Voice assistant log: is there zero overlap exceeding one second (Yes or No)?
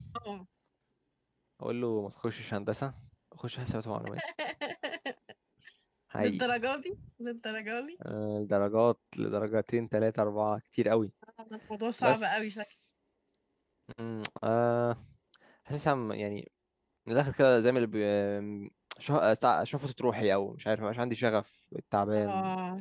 Yes